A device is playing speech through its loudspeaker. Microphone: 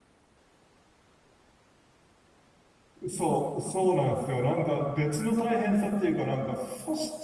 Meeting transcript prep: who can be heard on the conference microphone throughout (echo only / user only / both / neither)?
user only